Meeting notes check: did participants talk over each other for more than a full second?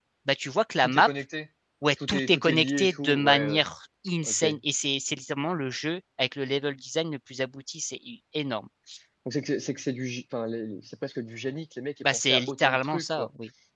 Yes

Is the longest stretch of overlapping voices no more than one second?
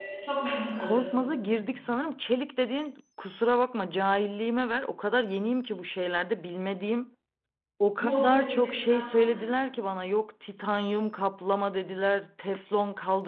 No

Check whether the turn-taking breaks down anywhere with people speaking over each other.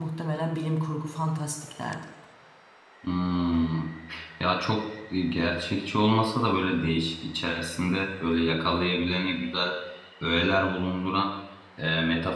No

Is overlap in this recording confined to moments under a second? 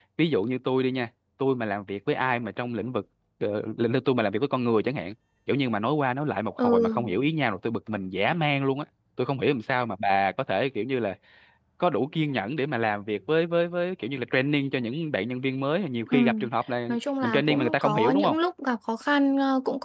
No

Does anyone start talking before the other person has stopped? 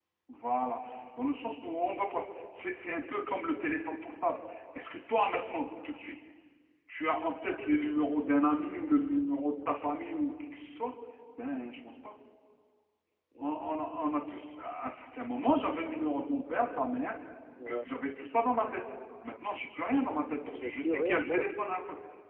Yes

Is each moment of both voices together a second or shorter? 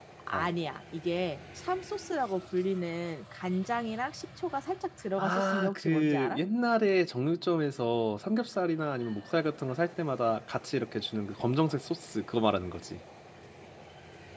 No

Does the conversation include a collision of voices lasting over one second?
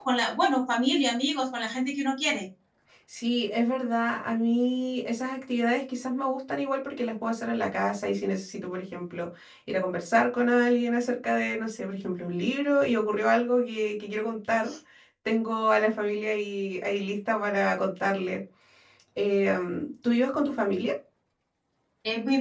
No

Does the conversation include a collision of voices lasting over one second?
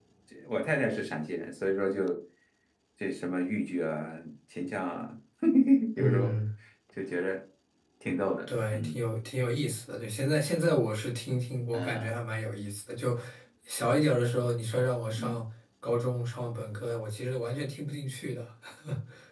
No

